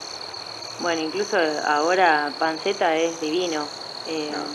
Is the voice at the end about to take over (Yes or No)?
No